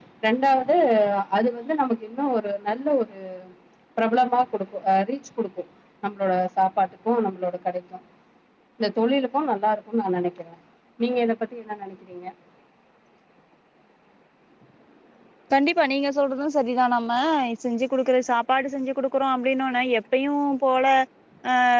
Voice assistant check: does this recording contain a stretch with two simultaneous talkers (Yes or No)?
No